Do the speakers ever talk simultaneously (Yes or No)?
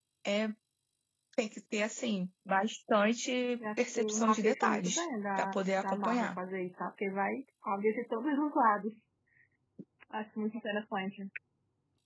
Yes